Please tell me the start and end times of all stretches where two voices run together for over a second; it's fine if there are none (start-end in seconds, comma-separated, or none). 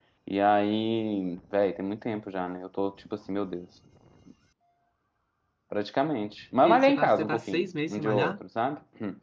6.6-8.4